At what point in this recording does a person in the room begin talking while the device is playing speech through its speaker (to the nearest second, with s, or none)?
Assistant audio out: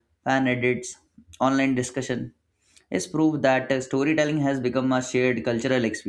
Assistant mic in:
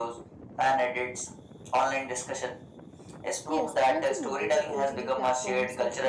3 s